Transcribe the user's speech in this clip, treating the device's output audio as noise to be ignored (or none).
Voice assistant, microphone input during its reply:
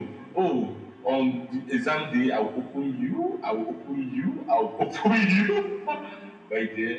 none